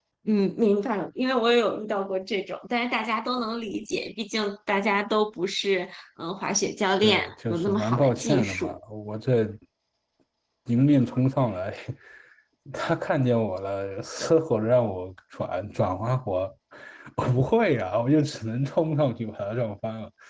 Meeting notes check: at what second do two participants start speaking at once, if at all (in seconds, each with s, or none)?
7.0 s